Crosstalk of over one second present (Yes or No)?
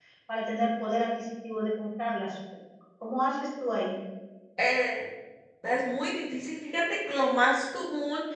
No